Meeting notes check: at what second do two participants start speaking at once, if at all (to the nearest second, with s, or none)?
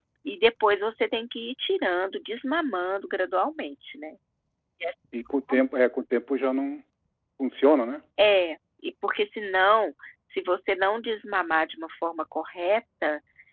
none